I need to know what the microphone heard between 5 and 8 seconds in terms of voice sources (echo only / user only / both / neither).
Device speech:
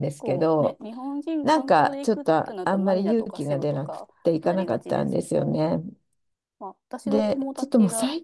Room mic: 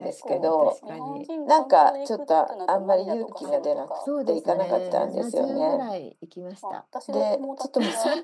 both